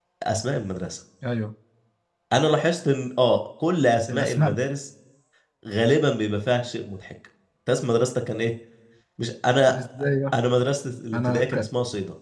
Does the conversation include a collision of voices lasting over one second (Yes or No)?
No